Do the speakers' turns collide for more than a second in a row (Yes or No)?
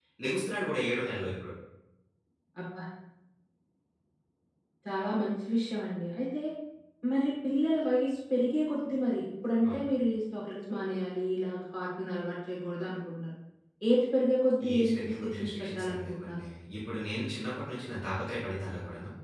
Yes